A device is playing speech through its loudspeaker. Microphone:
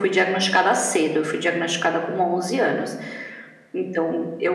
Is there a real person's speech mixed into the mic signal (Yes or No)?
No